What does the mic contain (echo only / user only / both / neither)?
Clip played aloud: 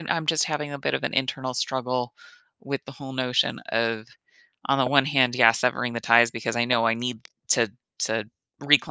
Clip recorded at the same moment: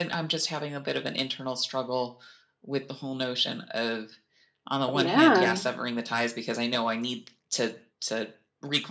both